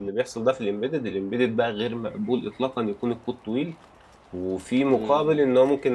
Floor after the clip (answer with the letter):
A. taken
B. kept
B